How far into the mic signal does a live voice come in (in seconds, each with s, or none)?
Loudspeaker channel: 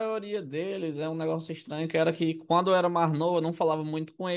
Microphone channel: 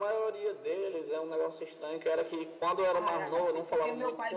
2.9 s